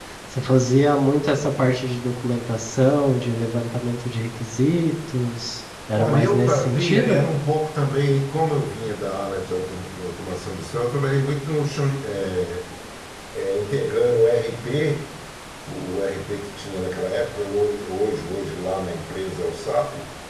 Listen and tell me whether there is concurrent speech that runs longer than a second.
Yes, from 5.9 s

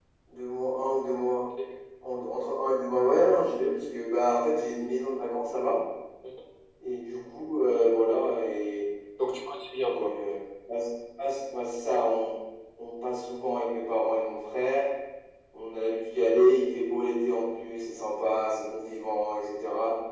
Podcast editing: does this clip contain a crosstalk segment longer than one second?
No

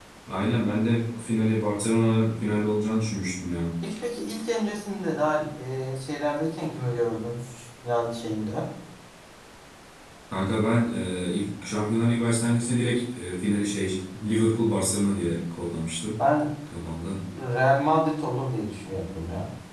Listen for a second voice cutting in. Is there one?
No

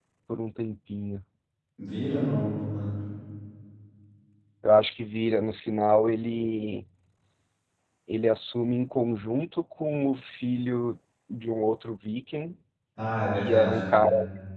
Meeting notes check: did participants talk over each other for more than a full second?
No

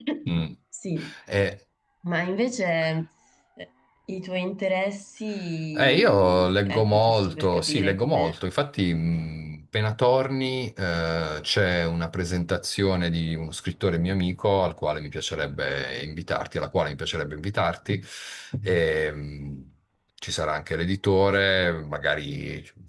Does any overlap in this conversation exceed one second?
Yes, from 5.8 s

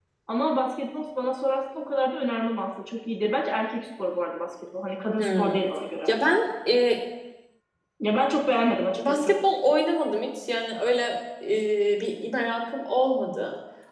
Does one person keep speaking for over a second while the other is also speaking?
No

